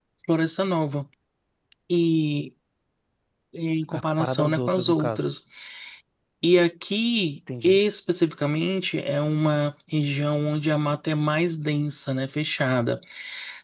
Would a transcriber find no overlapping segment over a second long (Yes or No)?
No